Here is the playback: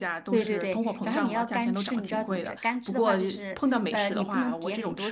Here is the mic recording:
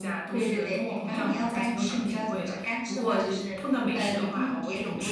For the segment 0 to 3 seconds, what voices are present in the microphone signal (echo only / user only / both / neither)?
echo only